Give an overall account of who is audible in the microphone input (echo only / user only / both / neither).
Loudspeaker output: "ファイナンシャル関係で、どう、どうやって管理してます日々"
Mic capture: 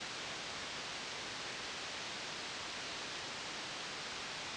neither